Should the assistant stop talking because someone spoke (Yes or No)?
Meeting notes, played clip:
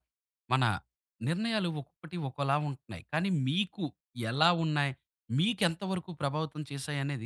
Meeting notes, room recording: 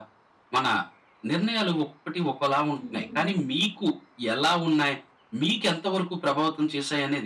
Yes